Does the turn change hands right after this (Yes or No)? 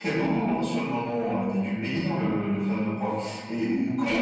No